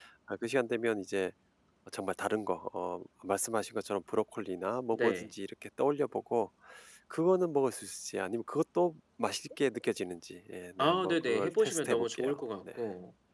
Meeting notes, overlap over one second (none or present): present